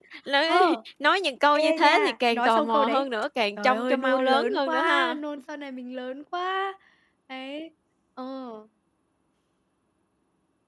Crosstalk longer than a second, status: present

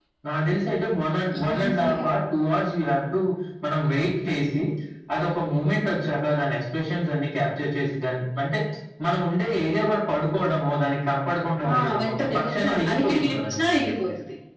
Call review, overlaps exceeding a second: present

